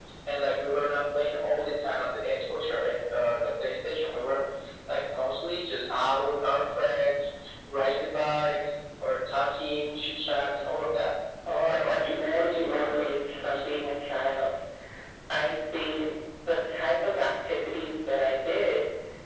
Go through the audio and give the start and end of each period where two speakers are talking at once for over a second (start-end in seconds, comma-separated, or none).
11.7-13.1